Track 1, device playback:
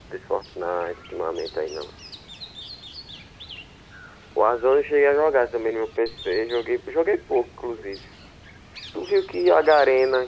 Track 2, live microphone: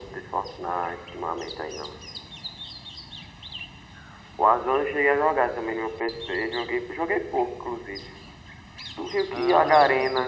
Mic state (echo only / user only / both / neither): both